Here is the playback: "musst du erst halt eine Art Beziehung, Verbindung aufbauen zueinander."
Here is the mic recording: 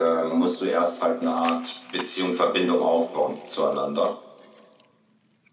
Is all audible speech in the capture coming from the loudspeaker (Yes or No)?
Yes